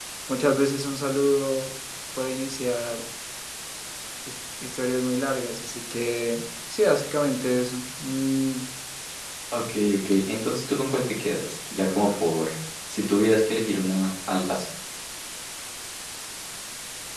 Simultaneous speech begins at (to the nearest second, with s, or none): none